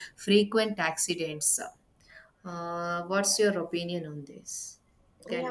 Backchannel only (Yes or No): No